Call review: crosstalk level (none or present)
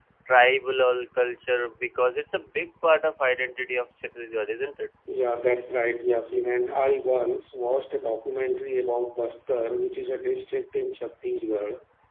none